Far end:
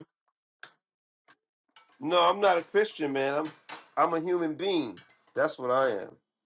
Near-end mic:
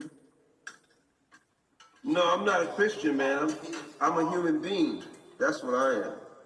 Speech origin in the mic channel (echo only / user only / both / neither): both